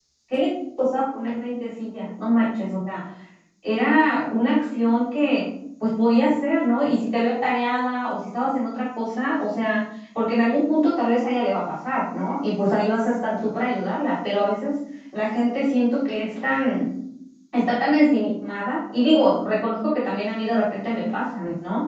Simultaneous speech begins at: none

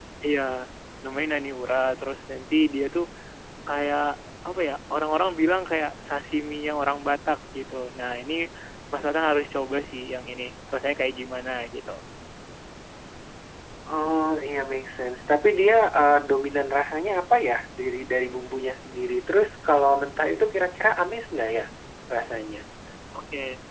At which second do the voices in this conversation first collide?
none

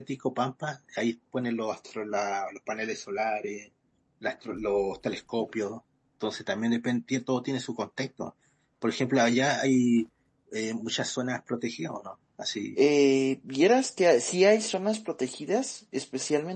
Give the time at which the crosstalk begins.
none

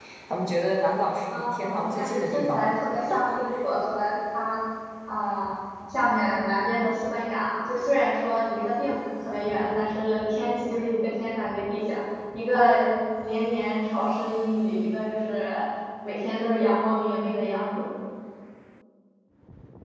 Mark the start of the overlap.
1.3 s

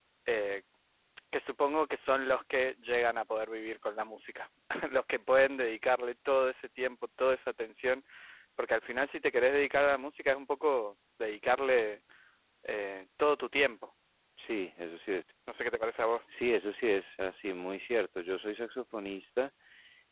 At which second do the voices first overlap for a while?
none

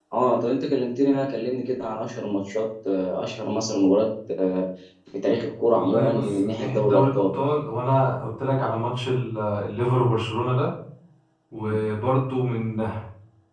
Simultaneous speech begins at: 5.7 s

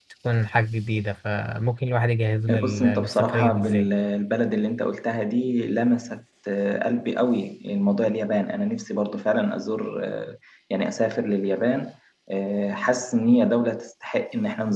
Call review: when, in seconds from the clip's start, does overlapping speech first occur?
2.5 s

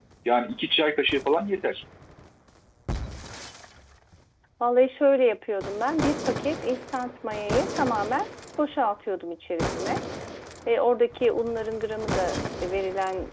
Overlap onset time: none

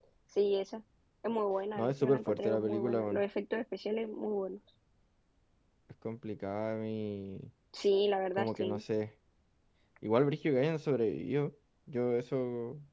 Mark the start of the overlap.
1.8 s

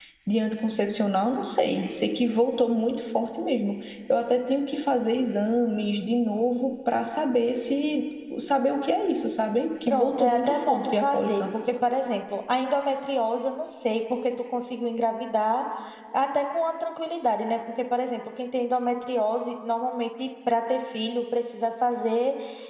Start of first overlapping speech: 9.9 s

